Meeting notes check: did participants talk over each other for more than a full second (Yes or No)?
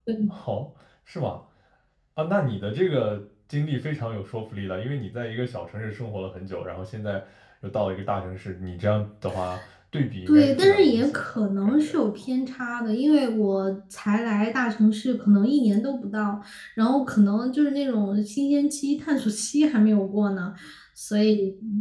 Yes